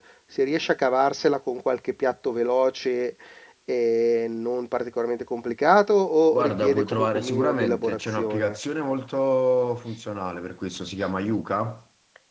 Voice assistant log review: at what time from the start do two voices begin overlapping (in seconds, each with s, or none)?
6.3 s